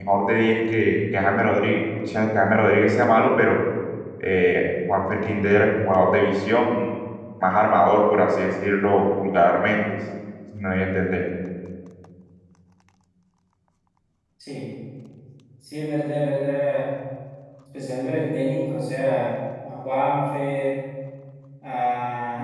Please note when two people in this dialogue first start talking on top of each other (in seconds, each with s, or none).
none